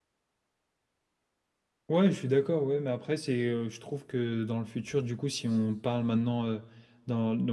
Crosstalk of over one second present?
No

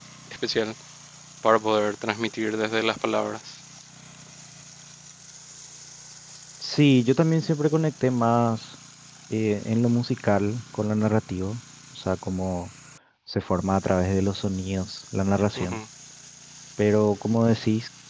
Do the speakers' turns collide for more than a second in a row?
No

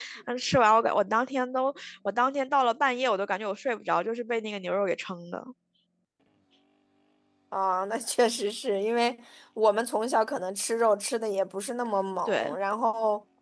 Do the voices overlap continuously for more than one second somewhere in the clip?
No

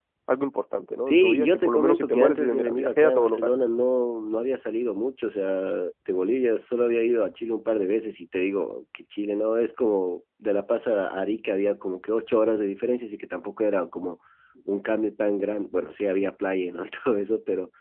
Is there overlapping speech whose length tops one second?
Yes, from 1.1 s

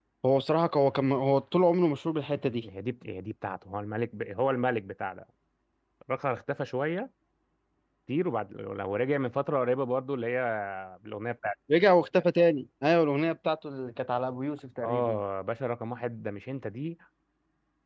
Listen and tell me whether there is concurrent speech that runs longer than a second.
No

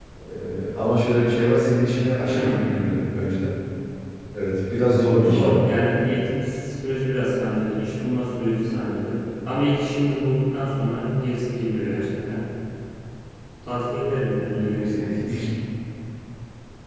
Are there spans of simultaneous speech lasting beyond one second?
No

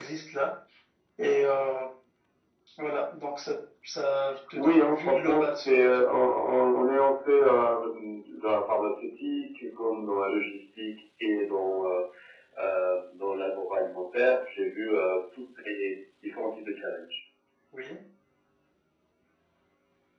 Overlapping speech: Yes, from 4.6 s

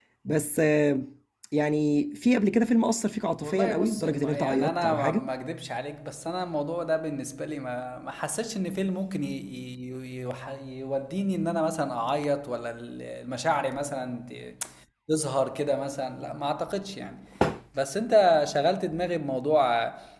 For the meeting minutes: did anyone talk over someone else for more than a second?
Yes, from 3.4 s

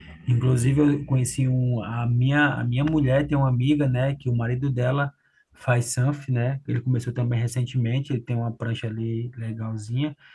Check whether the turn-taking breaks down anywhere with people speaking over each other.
No

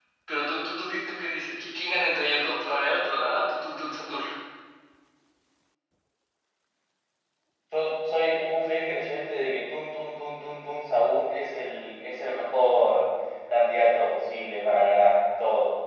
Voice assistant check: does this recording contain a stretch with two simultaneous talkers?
No

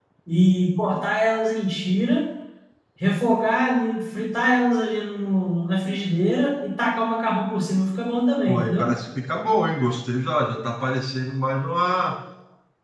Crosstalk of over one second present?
No

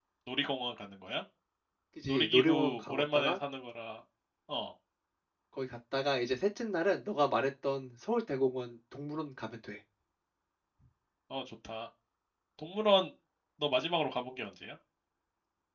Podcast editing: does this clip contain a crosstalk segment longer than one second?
Yes, from 2.1 s

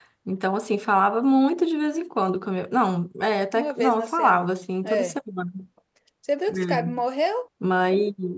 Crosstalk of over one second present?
Yes, from 3.5 s

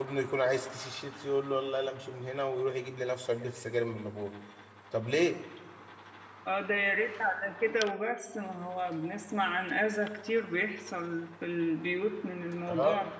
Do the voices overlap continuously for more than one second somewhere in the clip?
No

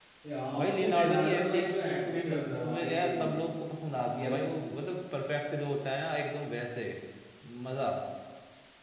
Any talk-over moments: Yes, from 0.6 s

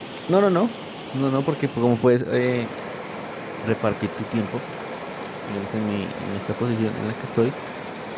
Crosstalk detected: No

